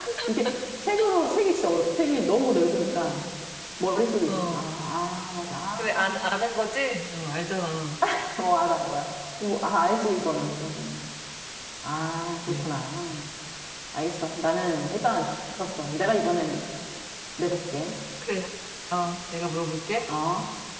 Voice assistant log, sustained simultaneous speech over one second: none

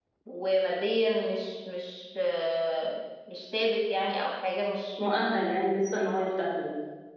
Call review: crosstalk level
none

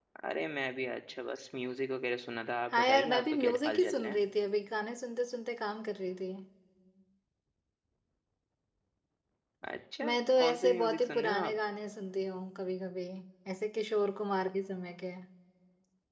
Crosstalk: present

